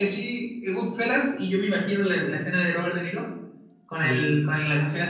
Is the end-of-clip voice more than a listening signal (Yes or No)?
No